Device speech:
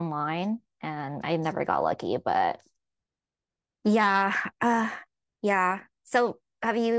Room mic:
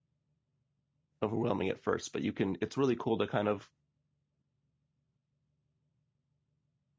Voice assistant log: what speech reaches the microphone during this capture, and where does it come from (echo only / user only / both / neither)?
user only